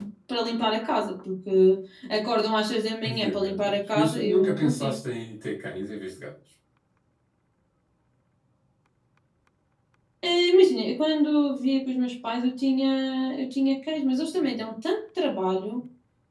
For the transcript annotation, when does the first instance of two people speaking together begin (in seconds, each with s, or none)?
3.0 s